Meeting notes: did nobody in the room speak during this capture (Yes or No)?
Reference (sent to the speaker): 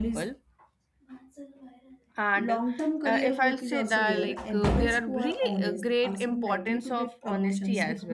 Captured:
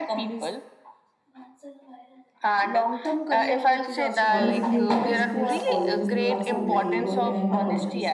No